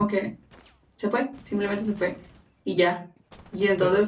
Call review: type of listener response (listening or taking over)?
listening